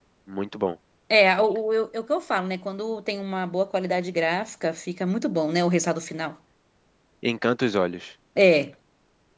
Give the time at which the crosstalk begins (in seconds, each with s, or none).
none